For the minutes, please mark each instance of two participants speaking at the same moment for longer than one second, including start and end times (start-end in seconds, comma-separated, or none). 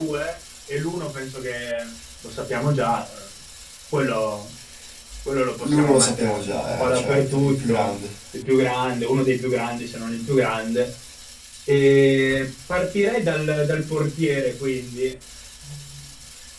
5.6-7.9